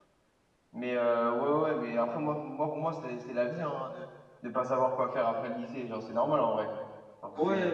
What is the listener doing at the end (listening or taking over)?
taking over